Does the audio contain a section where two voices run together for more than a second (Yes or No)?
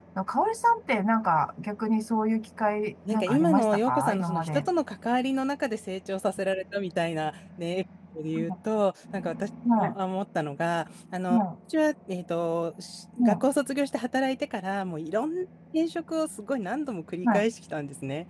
Yes